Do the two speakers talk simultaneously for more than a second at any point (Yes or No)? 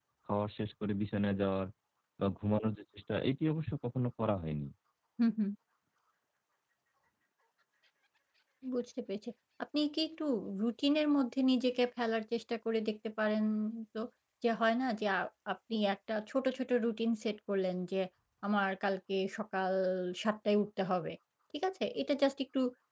No